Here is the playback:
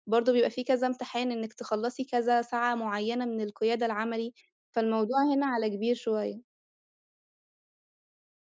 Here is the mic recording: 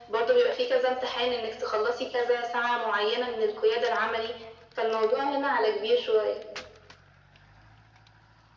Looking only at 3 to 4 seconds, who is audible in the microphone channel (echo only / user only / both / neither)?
echo only